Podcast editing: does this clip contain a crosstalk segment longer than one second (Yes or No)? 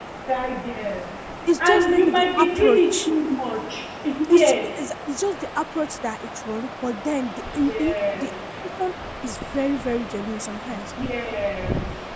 Yes